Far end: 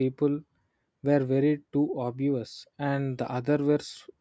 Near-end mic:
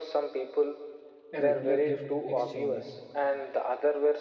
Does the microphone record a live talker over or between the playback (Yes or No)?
Yes